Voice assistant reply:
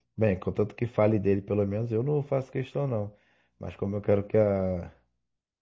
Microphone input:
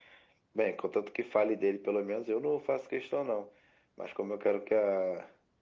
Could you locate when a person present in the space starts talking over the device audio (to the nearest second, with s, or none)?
none